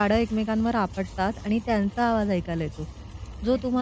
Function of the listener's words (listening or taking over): listening